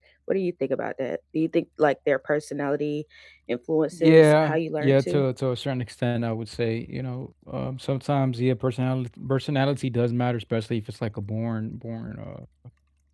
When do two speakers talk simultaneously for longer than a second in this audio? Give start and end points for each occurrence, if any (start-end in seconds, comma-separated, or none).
3.9-5.2